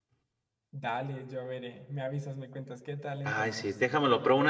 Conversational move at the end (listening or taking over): taking over